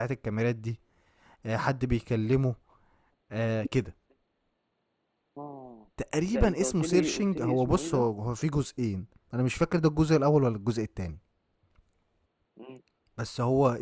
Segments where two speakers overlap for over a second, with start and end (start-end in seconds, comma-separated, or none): 6.3-8.0